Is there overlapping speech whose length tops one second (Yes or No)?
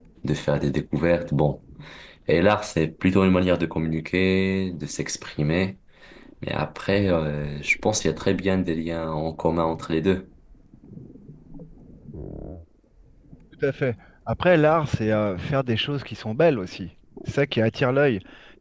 No